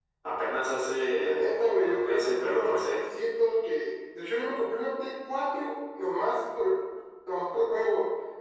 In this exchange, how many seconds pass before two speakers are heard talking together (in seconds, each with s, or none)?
1.2 s